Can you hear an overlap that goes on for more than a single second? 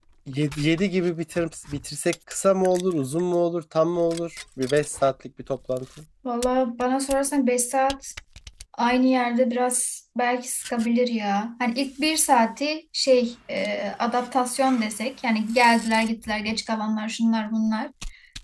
No

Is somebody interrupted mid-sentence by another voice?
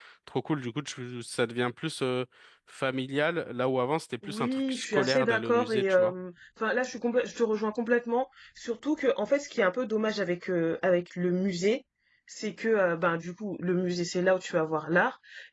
Yes, from 4.2 s

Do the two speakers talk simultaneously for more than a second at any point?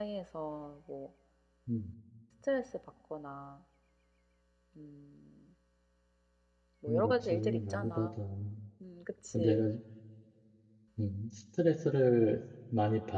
Yes, from 6.9 s

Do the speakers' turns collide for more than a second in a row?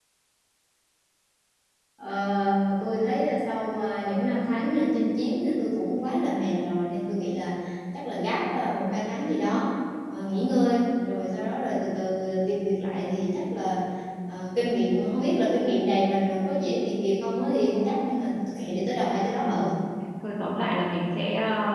No

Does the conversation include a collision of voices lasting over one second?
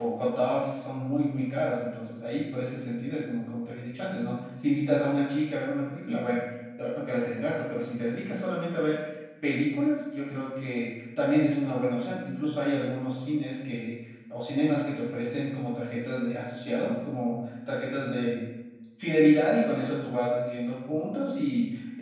No

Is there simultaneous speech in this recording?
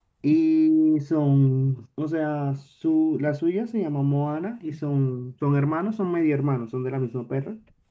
No

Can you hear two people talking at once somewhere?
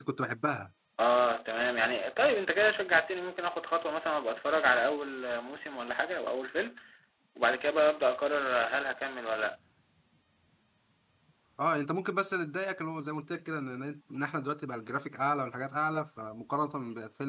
No

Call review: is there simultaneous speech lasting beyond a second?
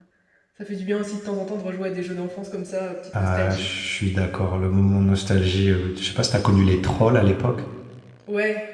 No

